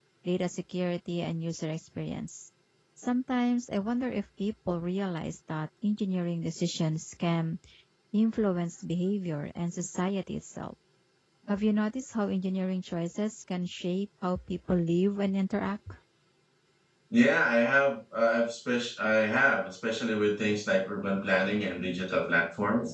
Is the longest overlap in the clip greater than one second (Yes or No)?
No